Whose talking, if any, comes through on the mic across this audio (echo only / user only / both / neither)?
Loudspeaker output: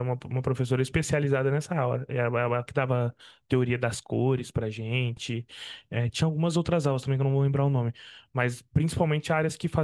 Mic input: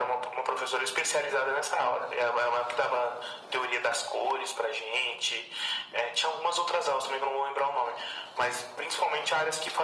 echo only